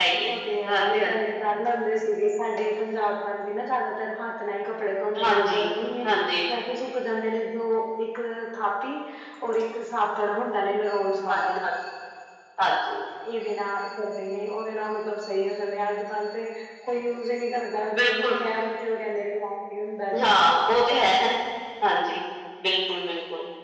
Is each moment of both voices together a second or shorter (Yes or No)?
Yes